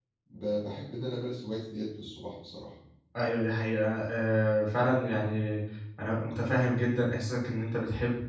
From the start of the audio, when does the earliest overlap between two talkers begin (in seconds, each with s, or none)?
none